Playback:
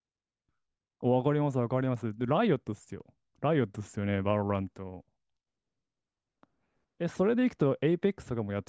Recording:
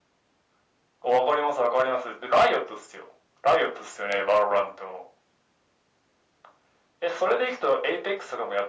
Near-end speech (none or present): none